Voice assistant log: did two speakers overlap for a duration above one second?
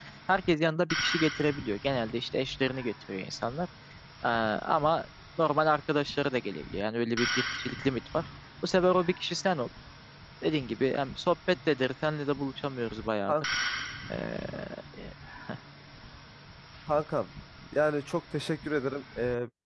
No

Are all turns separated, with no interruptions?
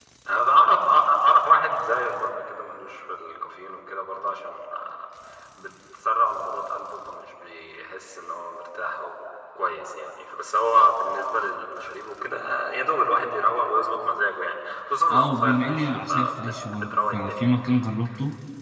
No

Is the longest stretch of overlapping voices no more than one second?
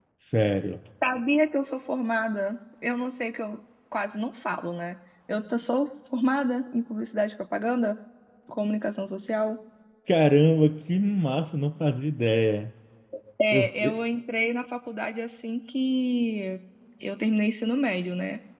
Yes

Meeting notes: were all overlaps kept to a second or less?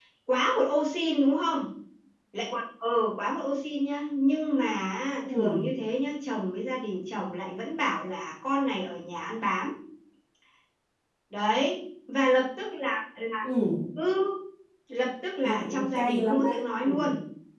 No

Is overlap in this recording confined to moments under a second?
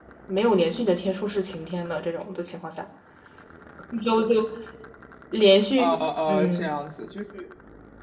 Yes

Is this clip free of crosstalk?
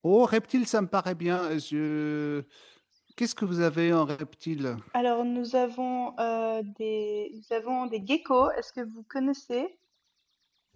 Yes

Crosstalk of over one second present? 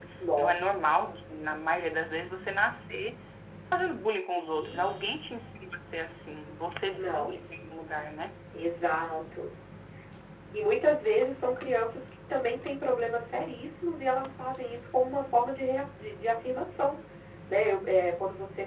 No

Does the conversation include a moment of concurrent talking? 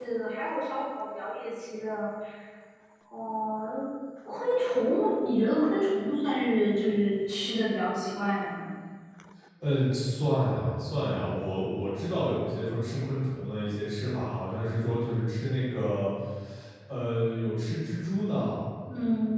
No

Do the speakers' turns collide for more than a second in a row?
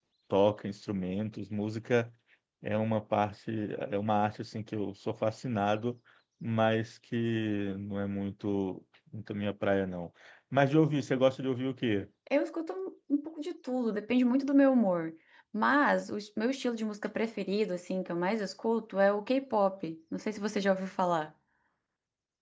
No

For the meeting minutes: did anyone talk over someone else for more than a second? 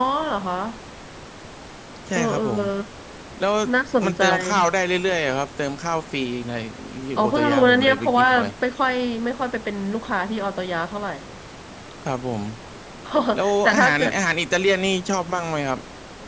Yes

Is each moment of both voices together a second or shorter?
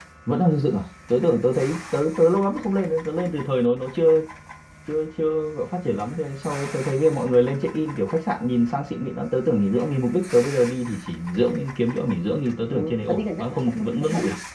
No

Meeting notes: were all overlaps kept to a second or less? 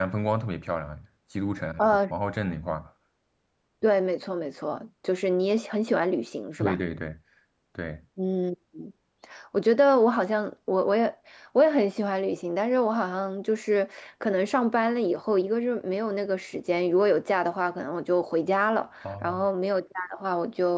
Yes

